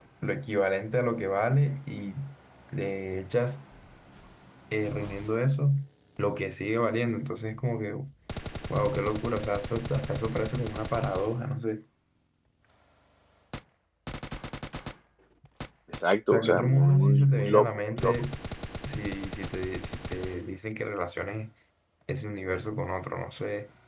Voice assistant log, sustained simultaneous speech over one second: present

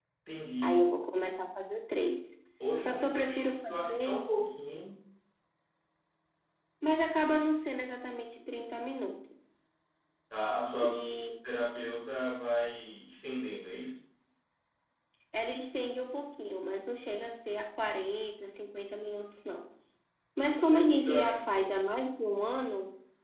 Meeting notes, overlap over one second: present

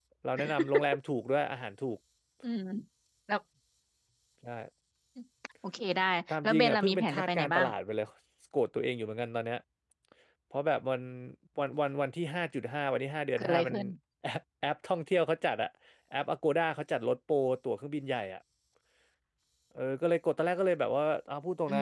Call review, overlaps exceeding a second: present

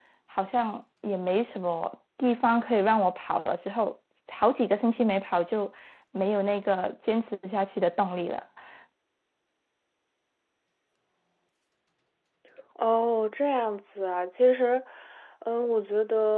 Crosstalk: none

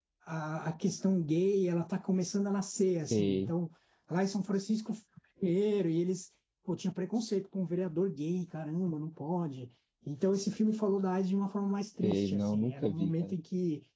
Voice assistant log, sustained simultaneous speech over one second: present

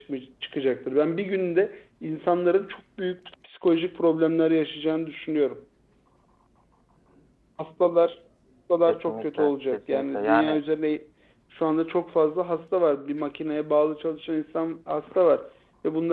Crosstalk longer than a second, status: present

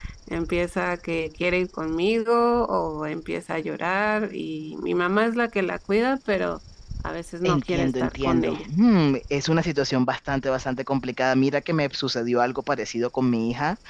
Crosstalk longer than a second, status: present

